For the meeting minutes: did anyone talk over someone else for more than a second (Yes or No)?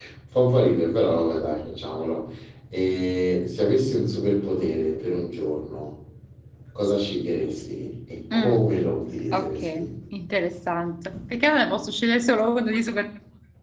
No